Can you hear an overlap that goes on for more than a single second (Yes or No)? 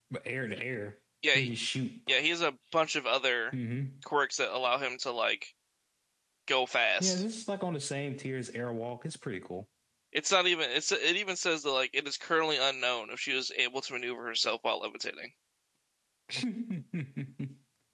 No